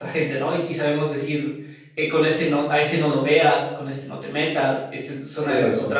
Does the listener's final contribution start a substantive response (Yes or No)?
No